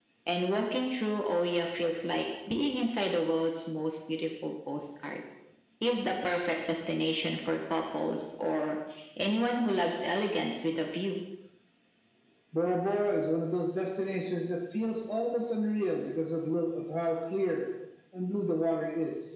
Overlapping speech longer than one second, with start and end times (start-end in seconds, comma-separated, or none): none